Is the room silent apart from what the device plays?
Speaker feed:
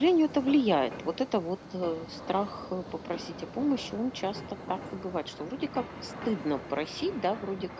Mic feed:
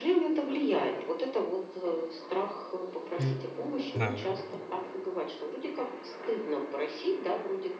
No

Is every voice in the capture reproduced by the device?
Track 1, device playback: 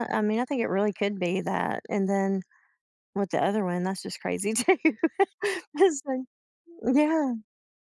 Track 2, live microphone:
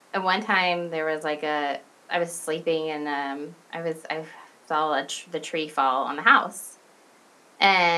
No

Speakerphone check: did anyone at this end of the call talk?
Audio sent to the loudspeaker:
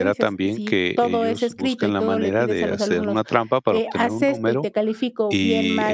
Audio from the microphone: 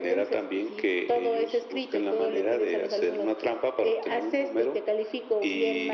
No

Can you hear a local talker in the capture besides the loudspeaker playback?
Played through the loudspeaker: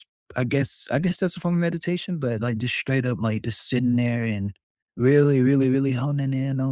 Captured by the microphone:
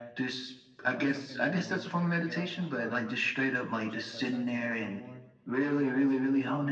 Yes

